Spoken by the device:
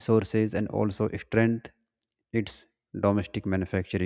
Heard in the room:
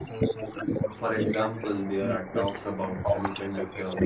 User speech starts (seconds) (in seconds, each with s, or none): 0.9 s